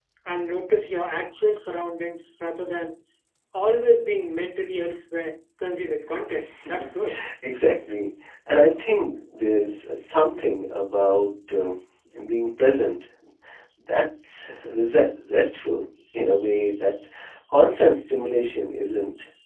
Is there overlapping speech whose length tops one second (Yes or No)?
No